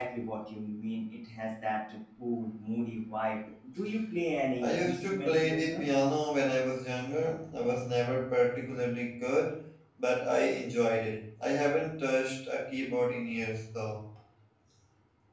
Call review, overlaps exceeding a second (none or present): present